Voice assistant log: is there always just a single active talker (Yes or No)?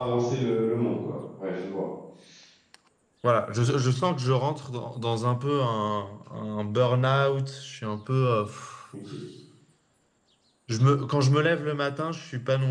Yes